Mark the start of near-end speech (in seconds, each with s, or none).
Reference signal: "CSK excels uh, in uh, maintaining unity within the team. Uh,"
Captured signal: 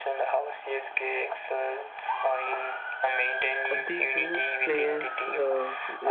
3.7 s